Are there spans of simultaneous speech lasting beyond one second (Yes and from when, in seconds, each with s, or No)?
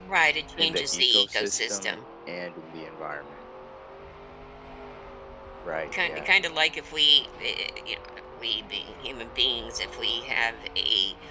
Yes, from 0.6 s